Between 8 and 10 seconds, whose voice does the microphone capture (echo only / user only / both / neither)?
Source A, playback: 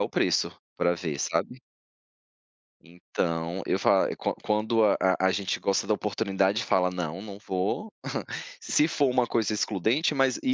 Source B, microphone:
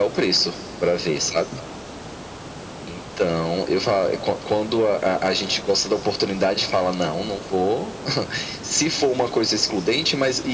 echo only